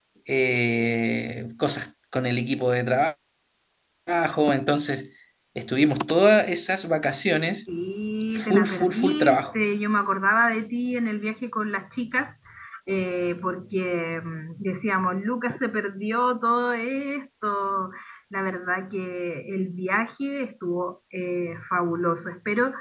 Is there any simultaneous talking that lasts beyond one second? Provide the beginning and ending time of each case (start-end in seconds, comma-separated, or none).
8.4-9.6